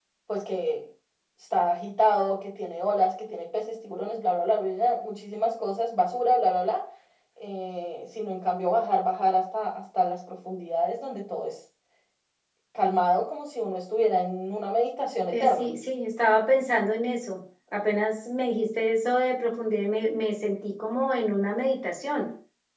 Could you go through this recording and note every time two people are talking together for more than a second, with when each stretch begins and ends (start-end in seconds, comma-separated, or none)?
none